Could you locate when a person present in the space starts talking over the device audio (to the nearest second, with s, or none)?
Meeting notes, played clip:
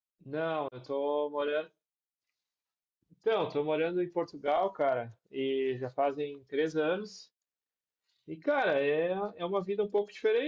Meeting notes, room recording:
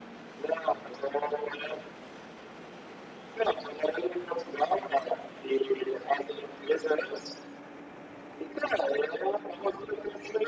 none